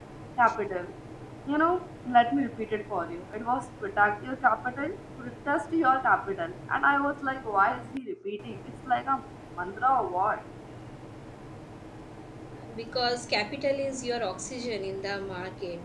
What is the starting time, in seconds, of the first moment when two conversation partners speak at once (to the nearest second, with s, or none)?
none